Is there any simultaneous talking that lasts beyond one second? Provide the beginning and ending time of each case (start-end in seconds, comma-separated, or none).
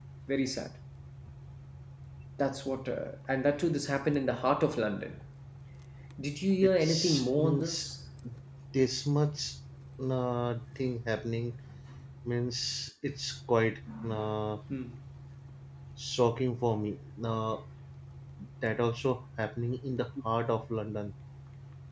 6.6-7.9